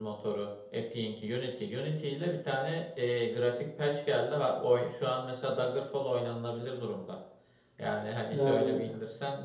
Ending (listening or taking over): listening